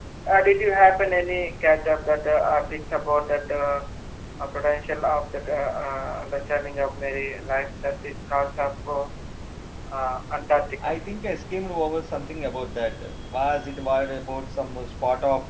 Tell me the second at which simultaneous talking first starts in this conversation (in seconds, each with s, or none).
none